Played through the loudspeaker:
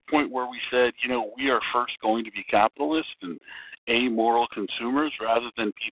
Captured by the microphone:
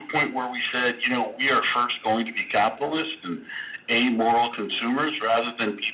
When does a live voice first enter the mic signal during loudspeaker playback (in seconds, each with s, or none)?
none